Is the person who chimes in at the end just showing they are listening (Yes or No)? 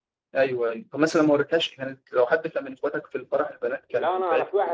No